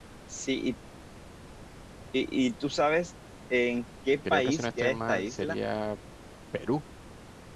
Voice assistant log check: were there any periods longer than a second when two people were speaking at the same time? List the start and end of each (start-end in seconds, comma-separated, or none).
4.3-5.6